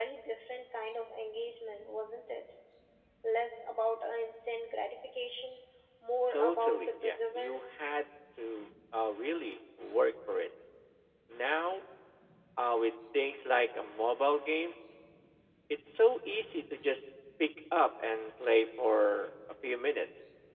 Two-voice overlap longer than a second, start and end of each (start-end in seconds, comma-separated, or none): 6.3-7.6